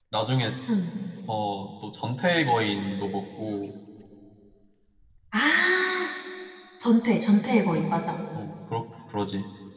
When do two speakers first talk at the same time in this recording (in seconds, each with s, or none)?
none